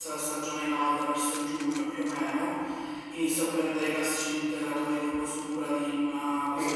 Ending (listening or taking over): taking over